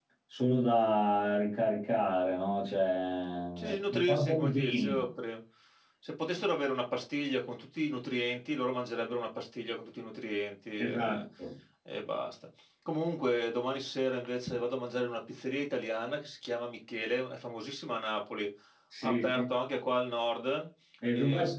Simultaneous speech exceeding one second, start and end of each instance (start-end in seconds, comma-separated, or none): 3.7-5.0